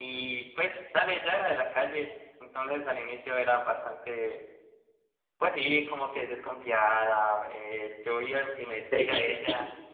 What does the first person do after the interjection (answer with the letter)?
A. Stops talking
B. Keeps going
A